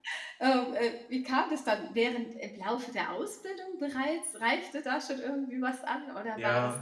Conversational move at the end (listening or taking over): listening